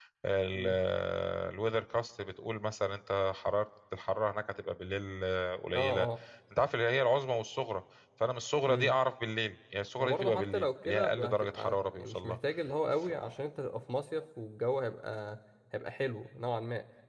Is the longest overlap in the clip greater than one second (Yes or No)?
Yes